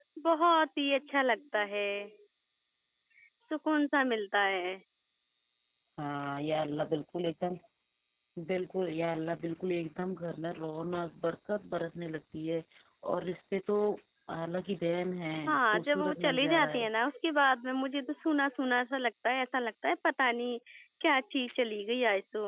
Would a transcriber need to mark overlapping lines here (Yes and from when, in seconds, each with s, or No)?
Yes, from 15.5 s